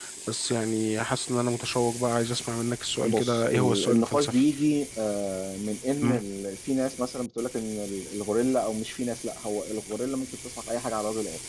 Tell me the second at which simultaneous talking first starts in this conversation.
3 s

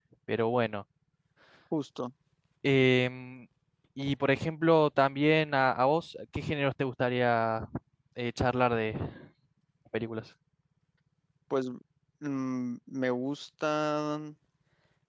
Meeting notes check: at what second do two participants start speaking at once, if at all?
none

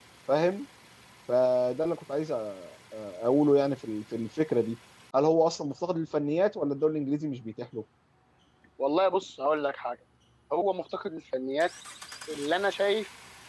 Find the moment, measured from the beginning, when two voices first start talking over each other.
none

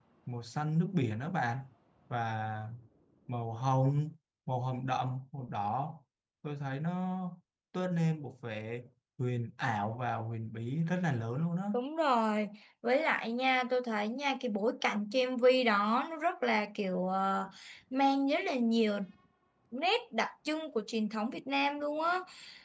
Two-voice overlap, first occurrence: none

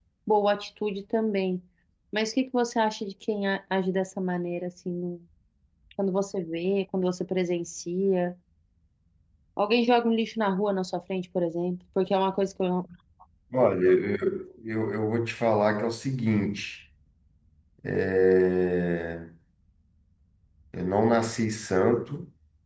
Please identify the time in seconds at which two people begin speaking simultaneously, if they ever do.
none

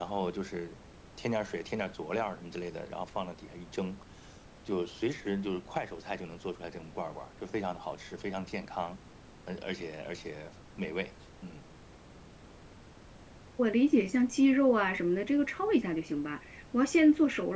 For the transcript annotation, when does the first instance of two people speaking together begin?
none

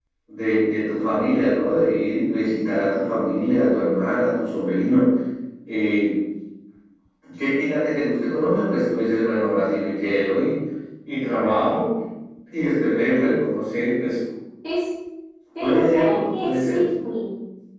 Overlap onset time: 16 s

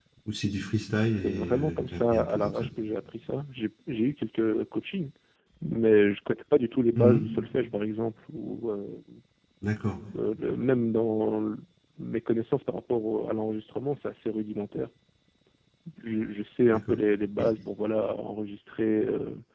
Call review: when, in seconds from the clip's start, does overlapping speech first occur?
1 s

